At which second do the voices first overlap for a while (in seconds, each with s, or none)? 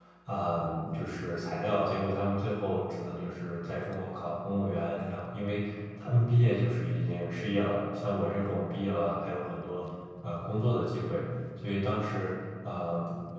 none